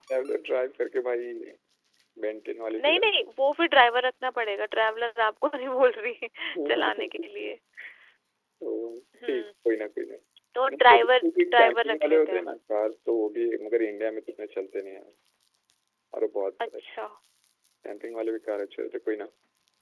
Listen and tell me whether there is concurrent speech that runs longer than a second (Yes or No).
Yes